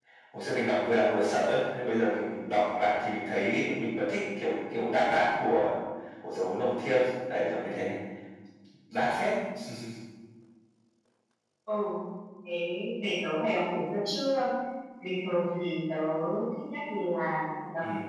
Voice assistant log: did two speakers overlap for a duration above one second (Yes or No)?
No